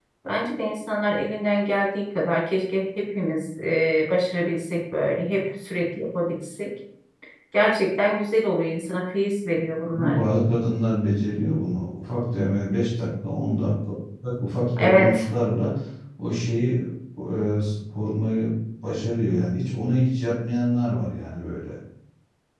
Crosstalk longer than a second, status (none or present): none